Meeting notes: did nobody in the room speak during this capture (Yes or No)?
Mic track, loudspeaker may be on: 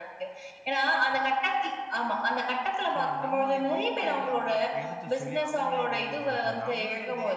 No